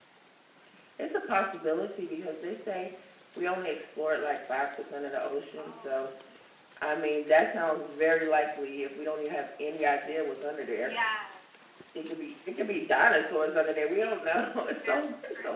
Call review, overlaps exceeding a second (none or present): none